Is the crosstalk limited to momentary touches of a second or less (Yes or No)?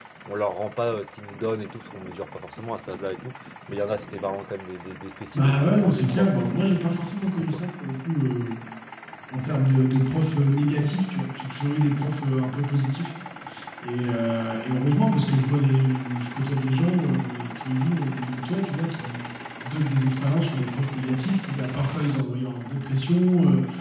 No